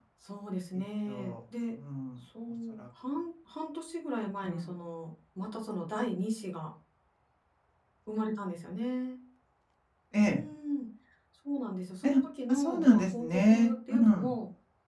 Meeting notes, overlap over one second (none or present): present